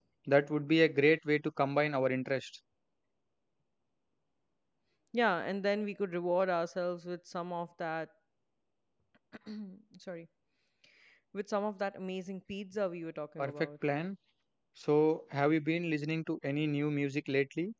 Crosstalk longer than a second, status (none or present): none